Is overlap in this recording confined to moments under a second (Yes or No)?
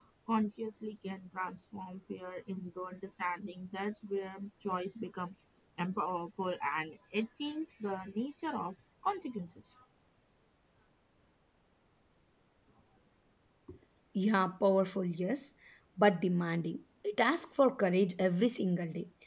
Yes